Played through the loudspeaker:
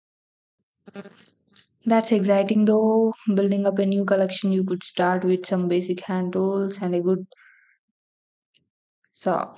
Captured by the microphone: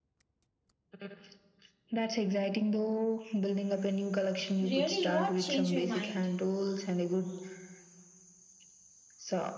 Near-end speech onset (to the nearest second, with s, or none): 5 s